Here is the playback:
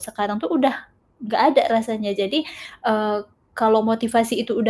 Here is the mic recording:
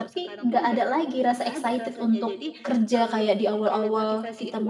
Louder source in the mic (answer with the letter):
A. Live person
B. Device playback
A